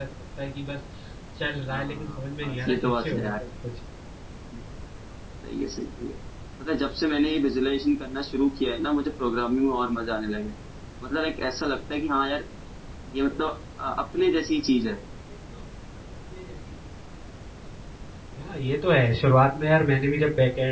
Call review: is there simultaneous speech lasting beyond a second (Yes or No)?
Yes